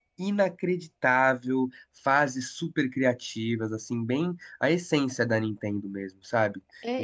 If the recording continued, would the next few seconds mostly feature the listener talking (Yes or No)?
Yes